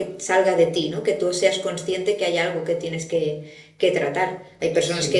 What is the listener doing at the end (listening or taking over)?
listening